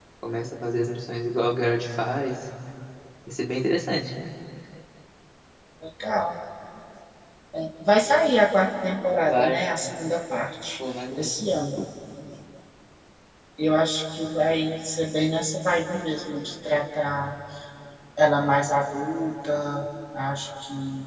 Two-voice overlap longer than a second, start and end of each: none

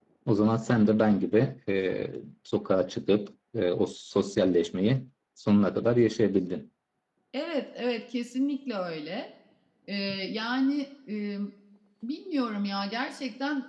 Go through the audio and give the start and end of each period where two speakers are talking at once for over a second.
none

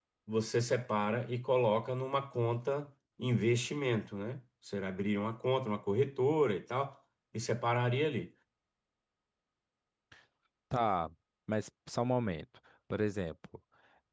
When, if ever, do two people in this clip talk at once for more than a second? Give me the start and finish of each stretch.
none

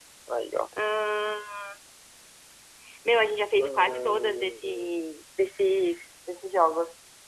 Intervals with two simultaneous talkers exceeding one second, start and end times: 3.6-4.9

